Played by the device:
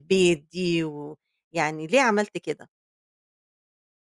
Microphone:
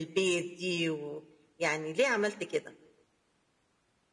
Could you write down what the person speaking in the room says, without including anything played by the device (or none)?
none